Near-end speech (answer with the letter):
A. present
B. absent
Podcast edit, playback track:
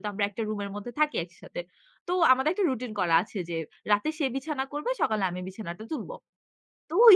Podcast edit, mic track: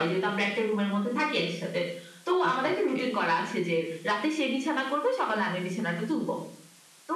A